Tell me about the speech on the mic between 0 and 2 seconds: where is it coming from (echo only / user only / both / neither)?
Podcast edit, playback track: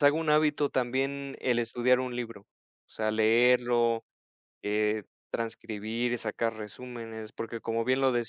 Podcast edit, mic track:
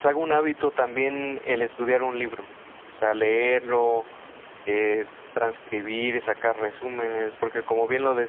echo only